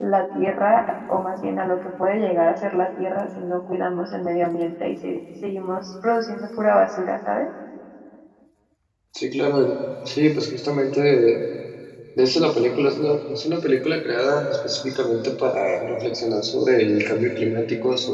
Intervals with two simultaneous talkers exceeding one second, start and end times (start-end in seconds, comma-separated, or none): none